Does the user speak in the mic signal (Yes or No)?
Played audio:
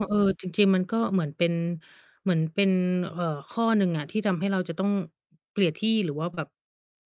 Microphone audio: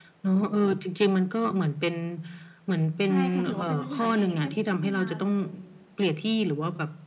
Yes